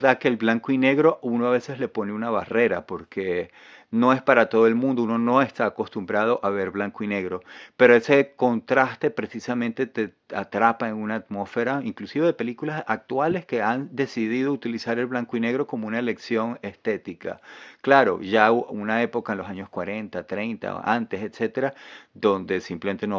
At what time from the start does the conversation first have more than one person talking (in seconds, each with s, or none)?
none